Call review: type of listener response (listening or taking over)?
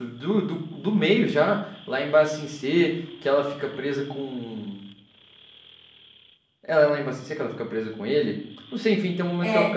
listening